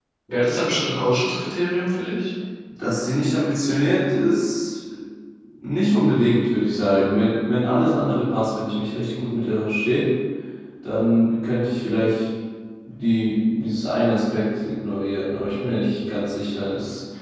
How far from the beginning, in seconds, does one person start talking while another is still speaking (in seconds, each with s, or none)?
none